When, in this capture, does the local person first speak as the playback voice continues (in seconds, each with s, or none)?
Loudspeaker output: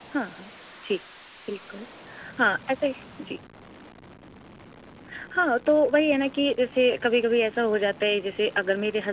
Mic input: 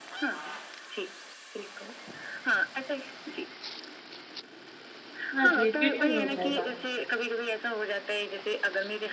5.3 s